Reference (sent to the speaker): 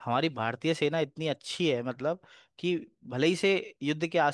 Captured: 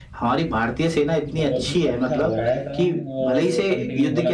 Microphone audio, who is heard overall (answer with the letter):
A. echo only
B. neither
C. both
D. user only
C